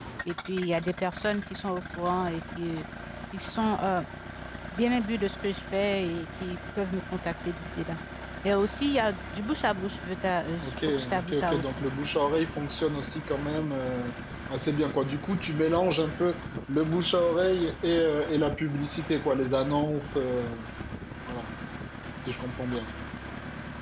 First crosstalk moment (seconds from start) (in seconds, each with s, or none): 10.6 s